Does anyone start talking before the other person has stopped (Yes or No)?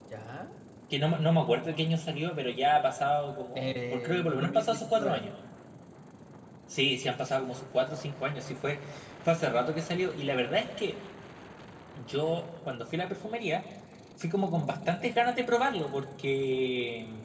Yes